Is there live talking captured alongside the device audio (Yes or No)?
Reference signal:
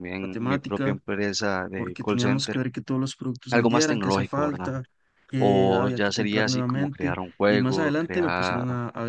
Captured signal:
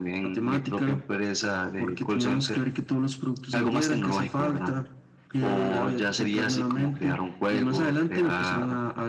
No